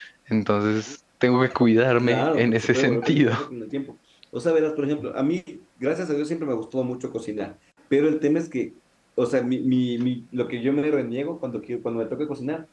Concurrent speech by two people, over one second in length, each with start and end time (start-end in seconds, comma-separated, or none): 2.0-3.4